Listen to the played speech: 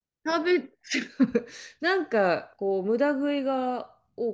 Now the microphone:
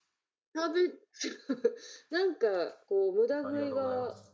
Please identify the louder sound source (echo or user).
echo